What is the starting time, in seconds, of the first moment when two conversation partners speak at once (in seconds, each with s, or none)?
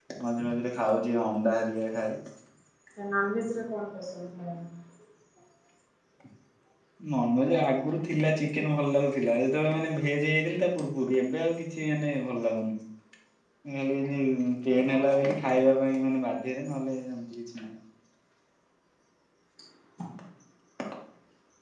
none